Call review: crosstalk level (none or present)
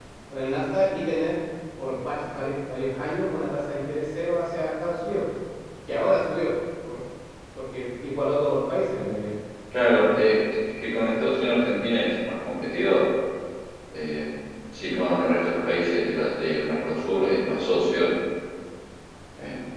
none